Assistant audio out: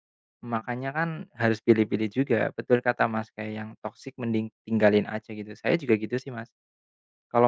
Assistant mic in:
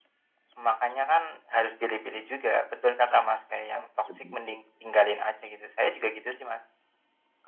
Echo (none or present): present